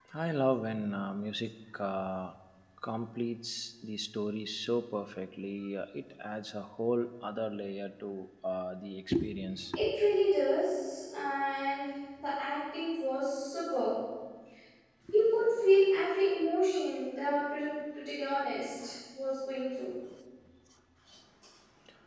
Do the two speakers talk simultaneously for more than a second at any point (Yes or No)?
No